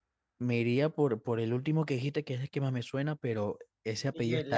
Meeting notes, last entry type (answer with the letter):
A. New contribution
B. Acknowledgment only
B